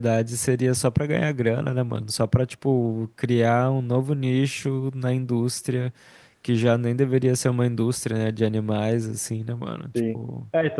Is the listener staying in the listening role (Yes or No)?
No